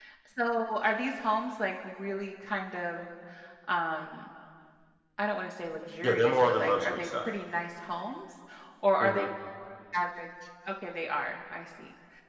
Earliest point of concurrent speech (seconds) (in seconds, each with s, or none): 6.0 s